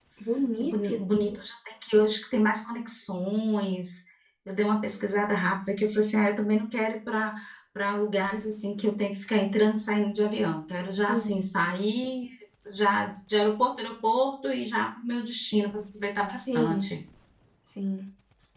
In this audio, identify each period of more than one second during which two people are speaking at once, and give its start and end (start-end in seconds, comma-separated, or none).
none